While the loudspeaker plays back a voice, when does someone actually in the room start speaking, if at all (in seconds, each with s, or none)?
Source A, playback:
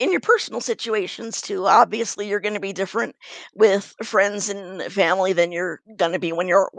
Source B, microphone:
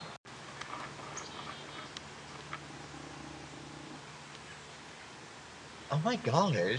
5.9 s